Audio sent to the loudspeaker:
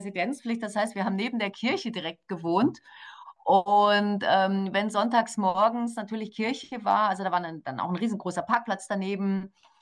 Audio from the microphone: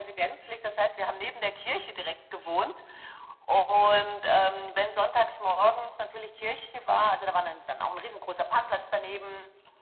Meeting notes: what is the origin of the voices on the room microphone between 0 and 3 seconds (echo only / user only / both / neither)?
echo only